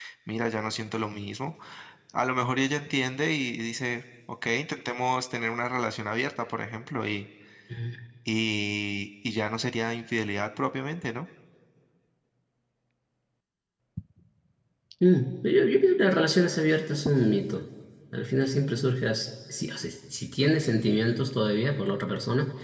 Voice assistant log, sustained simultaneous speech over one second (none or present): none